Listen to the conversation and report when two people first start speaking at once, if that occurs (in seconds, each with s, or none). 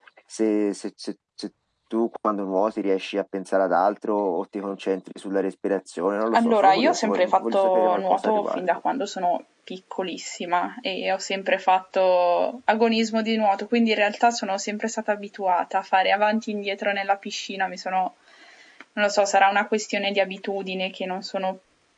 6.3 s